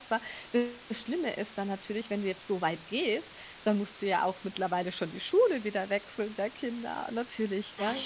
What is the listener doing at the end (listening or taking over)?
listening